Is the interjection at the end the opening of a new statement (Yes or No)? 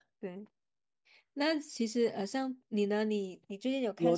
Yes